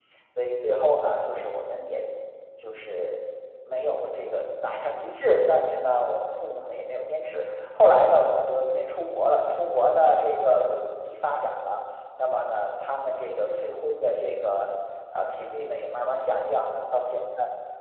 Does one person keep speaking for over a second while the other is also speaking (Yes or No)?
No